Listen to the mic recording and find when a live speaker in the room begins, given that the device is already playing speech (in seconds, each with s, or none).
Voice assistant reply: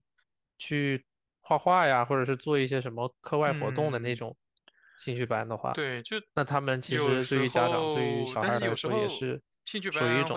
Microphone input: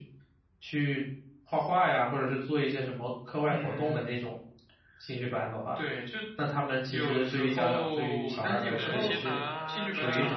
8.7 s